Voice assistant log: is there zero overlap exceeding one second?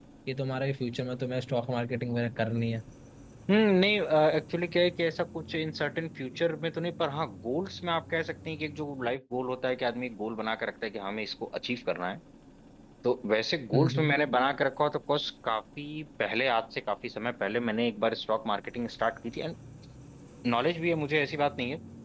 Yes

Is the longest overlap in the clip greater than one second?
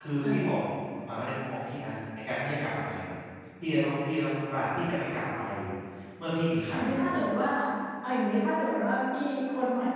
No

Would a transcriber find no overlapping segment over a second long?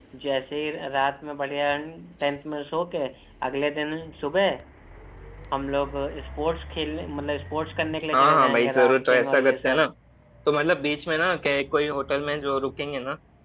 No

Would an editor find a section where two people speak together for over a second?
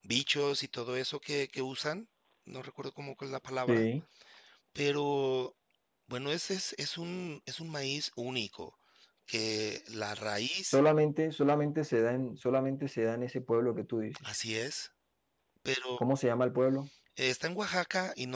No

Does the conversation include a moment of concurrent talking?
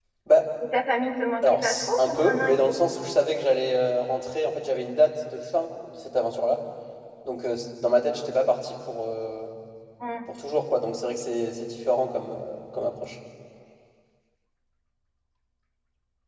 Yes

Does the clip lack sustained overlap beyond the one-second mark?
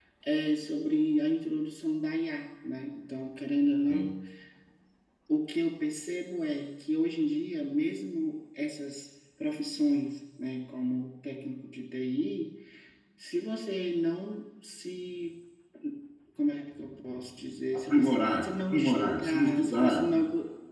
No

